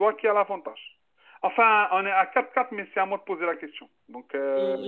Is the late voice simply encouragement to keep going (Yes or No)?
No